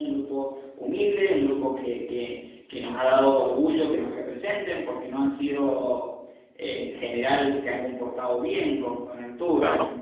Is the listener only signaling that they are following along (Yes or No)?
Yes